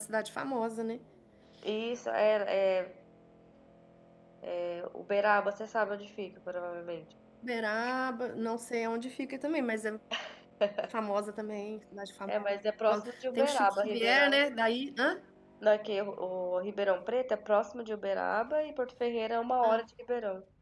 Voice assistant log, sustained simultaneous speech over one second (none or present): present